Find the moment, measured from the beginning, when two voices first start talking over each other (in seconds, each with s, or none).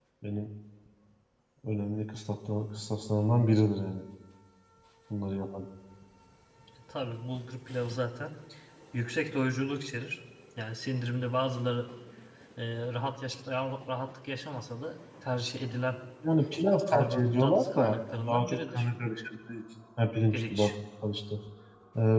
16.9 s